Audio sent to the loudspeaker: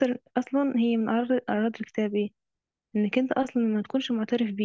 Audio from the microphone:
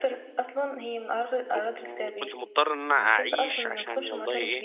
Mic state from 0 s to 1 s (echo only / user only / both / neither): echo only